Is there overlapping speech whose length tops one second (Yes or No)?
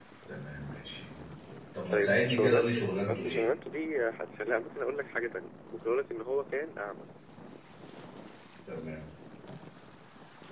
Yes